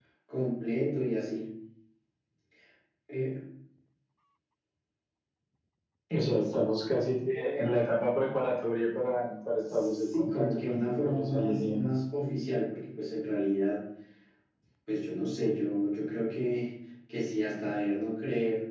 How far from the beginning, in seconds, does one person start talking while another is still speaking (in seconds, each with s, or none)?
9.7 s